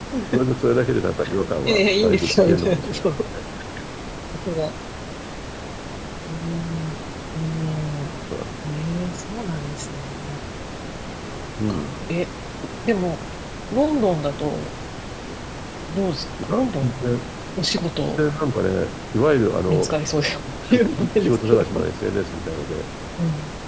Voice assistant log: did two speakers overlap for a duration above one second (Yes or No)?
Yes